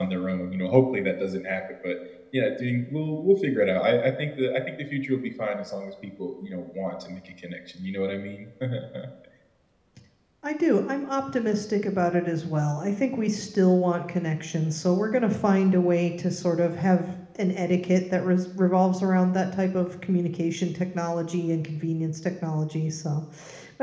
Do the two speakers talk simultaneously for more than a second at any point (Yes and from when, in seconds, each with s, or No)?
No